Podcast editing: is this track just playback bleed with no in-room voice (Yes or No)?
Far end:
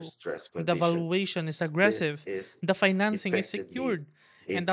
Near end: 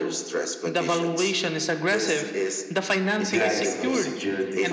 No